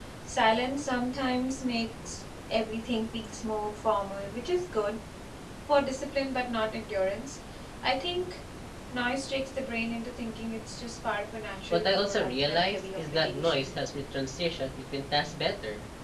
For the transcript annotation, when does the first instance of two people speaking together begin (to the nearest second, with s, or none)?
12 s